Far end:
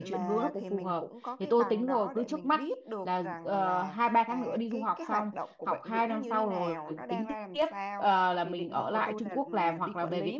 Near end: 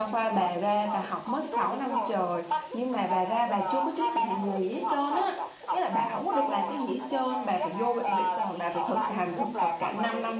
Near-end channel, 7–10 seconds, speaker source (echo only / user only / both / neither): both